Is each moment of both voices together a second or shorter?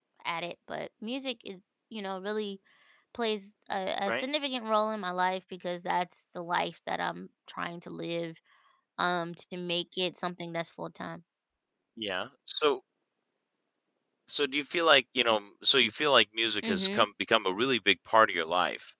Yes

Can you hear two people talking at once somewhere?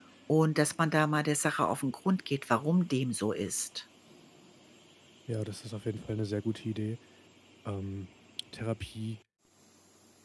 No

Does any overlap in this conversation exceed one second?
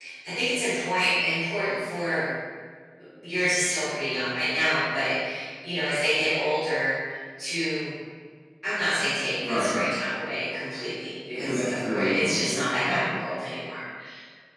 Yes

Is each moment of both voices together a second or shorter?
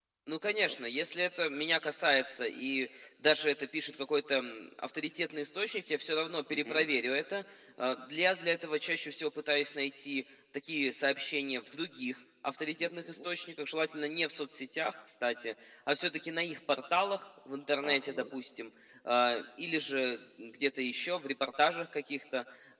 Yes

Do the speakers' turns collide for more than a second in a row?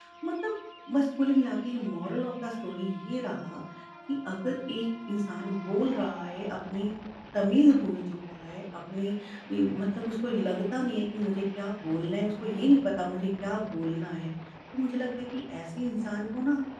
No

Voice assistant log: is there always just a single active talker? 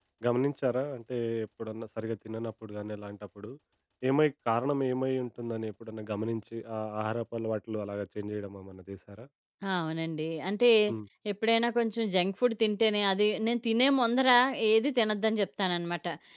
Yes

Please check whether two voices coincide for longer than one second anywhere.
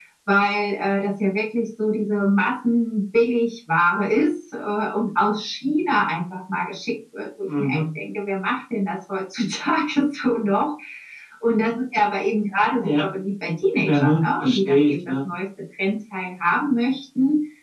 Yes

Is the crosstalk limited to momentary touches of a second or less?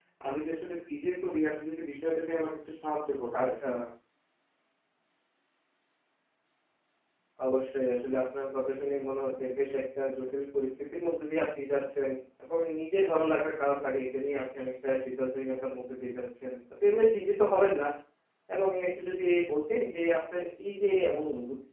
Yes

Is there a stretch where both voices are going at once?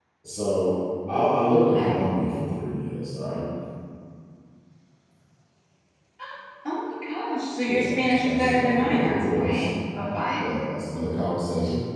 Yes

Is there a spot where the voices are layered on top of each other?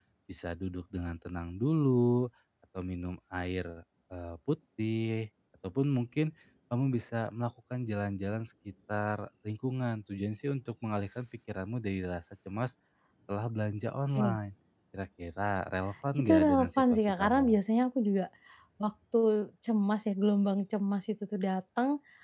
Yes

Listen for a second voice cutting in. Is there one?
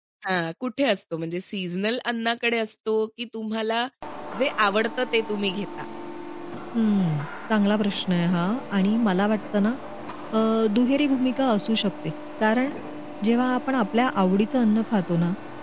No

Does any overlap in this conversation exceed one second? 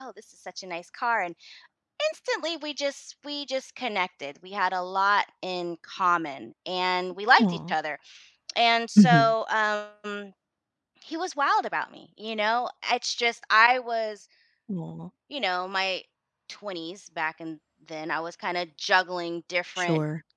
No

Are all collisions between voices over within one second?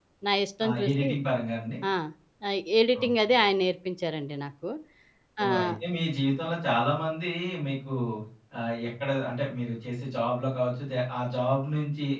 Yes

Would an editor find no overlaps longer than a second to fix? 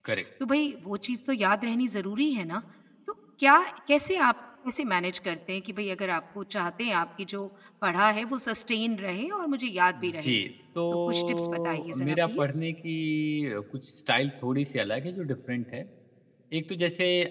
No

